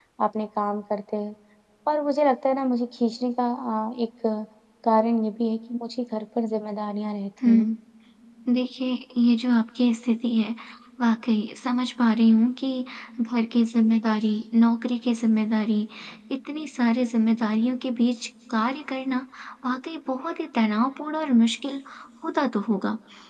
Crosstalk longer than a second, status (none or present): none